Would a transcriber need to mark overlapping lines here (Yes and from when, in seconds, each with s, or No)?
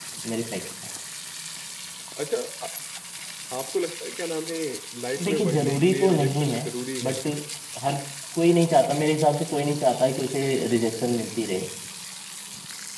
Yes, from 5.2 s